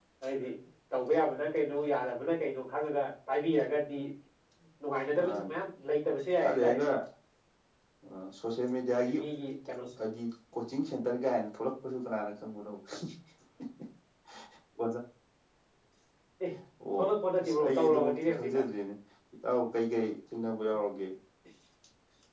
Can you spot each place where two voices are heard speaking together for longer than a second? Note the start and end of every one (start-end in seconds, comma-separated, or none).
17.4-18.6